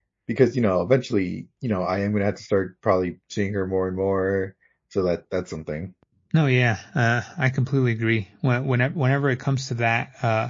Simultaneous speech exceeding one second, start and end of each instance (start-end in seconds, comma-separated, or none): none